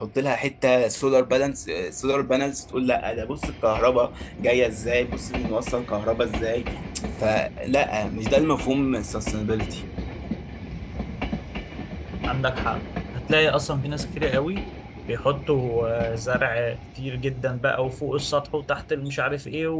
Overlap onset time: none

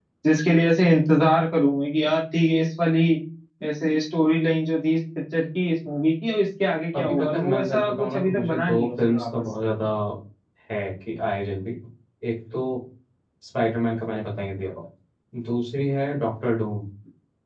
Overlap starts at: 7 s

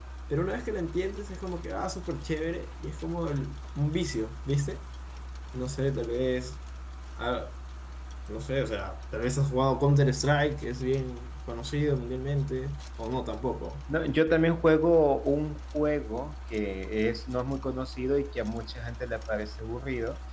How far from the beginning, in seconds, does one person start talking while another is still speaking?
none

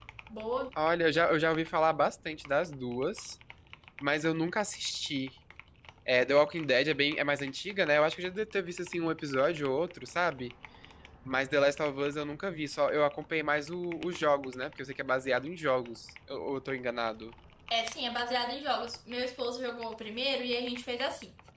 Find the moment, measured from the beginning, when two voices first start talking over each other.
none

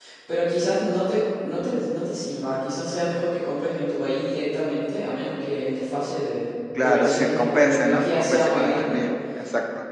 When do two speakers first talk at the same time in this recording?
7 s

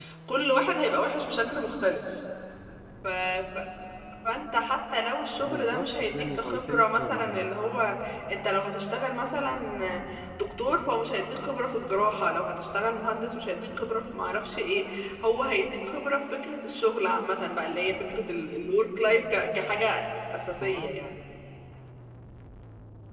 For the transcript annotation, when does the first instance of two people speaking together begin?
5 s

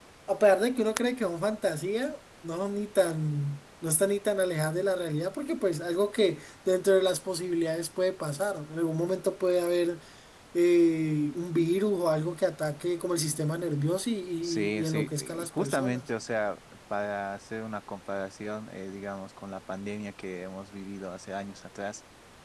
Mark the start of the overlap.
14 s

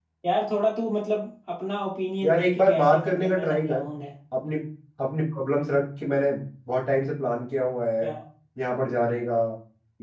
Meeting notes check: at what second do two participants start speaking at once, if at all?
2 s

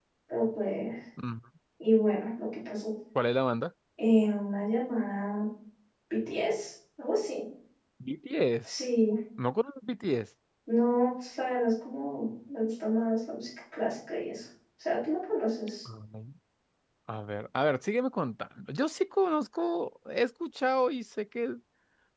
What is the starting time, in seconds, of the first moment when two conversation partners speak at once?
none

